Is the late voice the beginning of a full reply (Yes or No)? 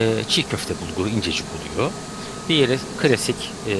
No